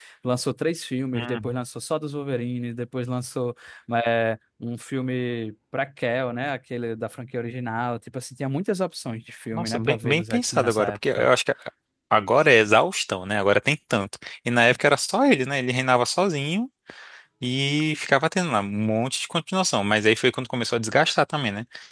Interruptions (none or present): present